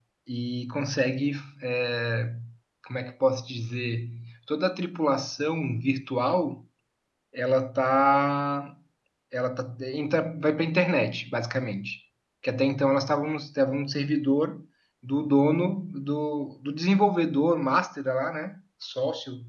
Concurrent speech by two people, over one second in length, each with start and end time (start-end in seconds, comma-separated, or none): none